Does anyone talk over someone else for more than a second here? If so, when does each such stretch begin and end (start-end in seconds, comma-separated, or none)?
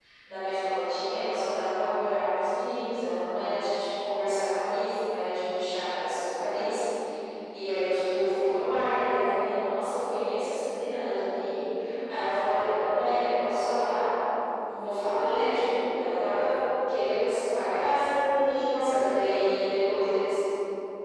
none